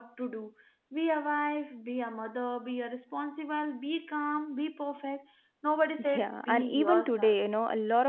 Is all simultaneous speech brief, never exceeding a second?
No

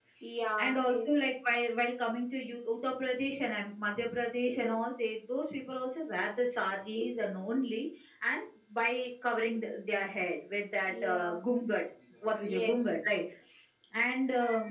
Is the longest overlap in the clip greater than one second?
No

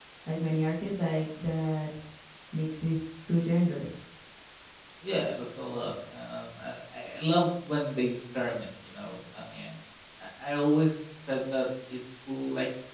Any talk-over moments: No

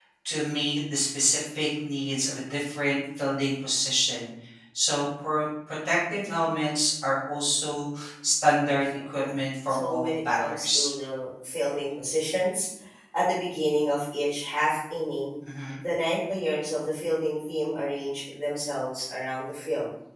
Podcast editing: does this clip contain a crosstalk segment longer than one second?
Yes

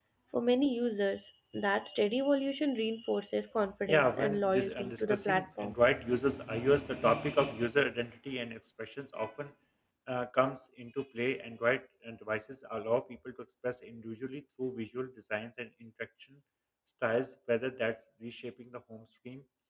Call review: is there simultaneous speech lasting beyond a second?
Yes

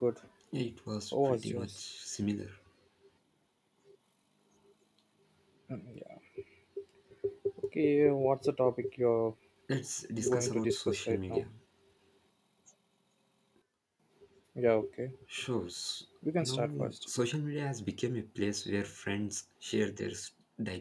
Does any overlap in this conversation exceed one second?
Yes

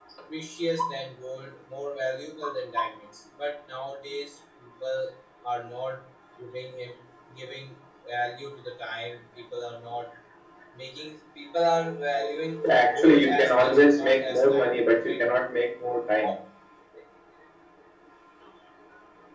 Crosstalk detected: Yes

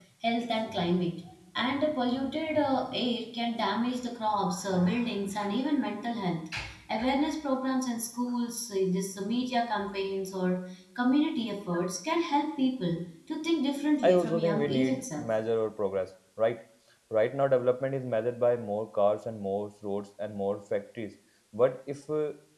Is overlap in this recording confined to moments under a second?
No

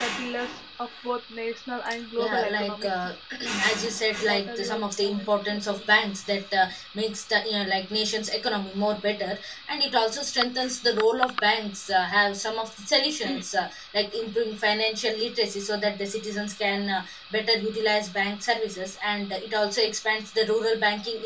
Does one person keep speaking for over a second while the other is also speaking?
Yes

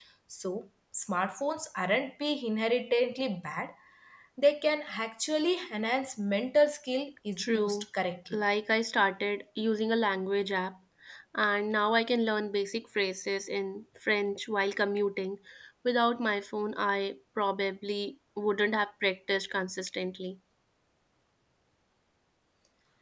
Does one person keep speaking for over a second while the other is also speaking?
No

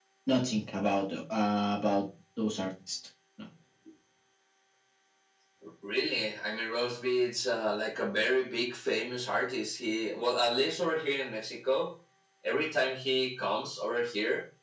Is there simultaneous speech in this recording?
No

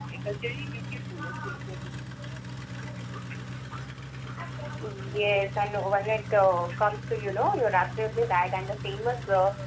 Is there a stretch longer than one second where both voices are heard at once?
No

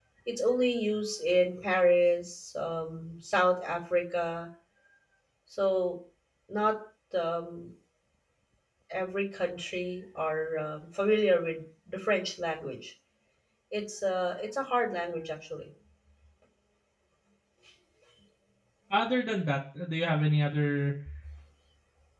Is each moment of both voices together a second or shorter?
Yes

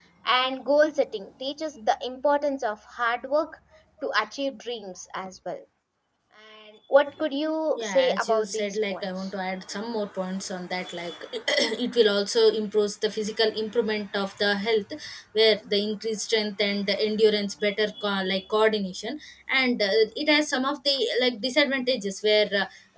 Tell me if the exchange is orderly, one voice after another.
No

